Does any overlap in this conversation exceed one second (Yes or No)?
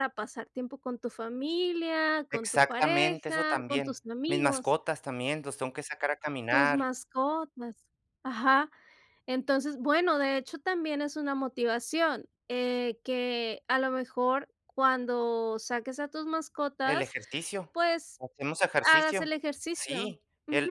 Yes